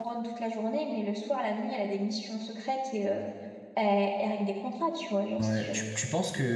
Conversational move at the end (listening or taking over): taking over